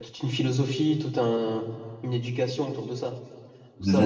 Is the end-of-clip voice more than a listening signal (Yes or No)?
Yes